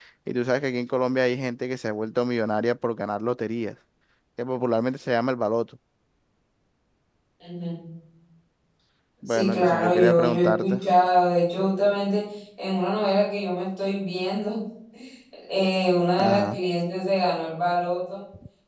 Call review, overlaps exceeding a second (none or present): present